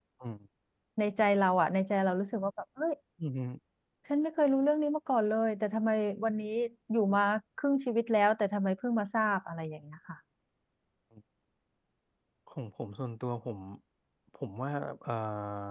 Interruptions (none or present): none